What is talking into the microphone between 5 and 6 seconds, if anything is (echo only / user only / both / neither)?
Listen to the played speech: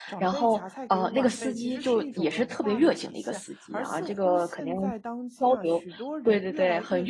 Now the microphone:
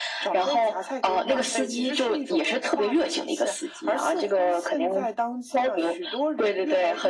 echo only